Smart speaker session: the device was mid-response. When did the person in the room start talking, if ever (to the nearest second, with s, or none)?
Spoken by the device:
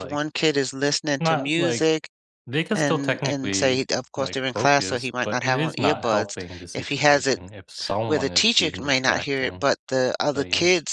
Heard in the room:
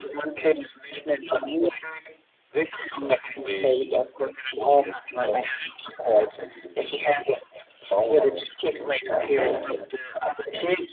9 s